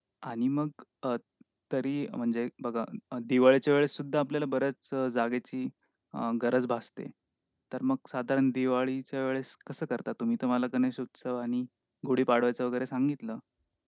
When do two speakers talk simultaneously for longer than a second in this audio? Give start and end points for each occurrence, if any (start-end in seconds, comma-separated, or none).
none